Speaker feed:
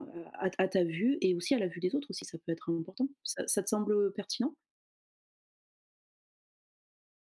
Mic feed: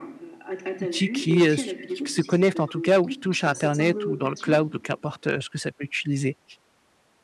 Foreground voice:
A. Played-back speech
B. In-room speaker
B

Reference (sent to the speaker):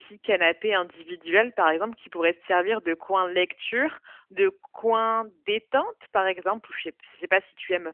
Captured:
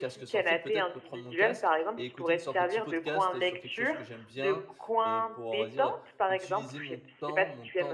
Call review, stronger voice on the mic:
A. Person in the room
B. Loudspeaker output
B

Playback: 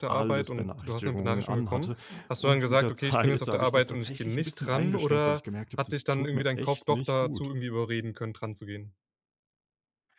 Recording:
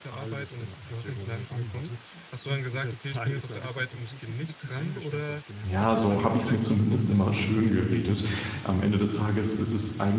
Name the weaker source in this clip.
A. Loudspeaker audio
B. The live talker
A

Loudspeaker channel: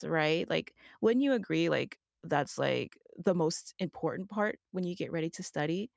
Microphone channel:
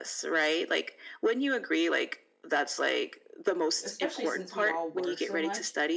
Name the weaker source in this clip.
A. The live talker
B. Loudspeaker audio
A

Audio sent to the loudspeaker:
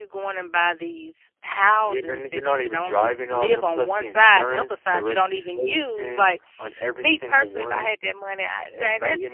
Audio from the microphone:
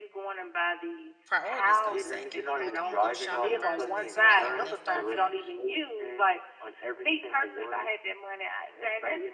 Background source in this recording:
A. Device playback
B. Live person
B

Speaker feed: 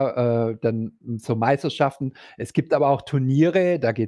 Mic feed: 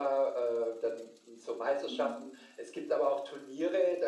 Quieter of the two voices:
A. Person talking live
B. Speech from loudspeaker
A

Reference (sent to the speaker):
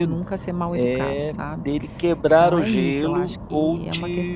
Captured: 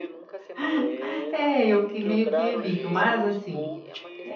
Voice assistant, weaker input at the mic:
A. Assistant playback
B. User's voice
A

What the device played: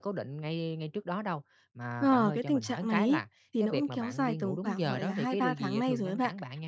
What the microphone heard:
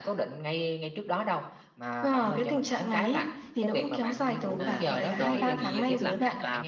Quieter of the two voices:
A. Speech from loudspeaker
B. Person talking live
B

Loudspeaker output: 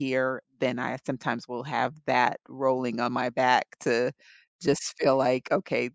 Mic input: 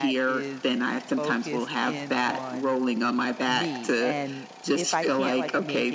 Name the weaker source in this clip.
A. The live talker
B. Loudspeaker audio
A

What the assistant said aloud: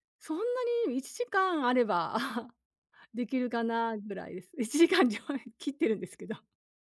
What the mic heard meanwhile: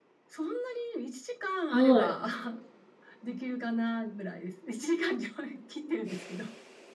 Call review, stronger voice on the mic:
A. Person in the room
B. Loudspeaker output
A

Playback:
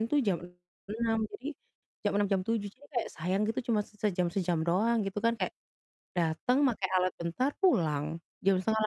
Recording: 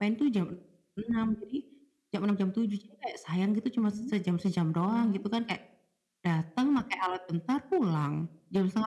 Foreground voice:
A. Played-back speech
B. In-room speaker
A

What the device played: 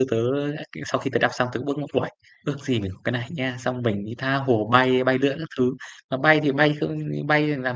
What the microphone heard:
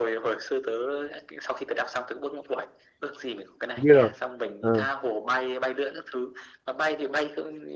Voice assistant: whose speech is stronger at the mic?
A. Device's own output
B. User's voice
B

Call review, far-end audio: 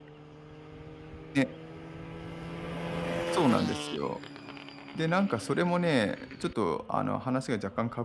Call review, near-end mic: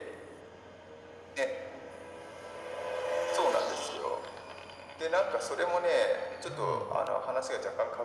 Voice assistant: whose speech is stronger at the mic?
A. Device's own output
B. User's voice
A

